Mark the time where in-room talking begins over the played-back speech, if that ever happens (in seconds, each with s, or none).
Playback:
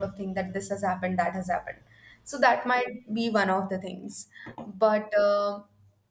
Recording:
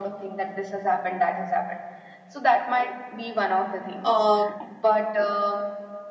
4.0 s